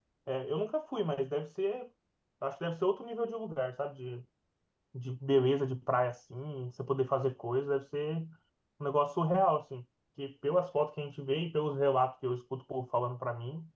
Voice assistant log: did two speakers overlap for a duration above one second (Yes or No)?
No